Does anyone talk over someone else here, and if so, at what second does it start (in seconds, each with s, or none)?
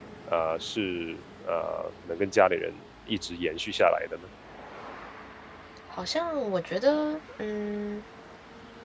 none